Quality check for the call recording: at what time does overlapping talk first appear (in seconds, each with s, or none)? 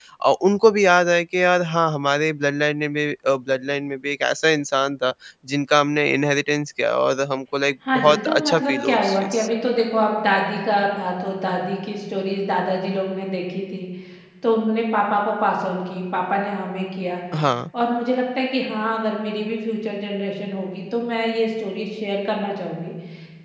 7.8 s